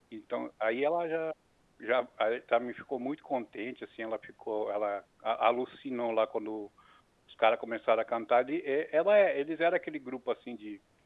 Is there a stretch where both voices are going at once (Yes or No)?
No